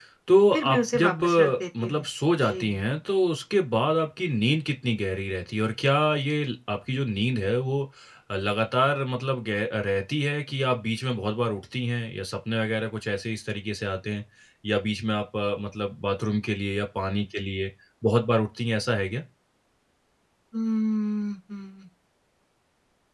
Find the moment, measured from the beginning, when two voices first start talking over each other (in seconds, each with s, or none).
0.5 s